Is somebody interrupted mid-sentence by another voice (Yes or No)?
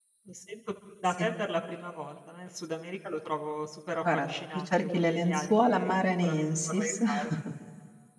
Yes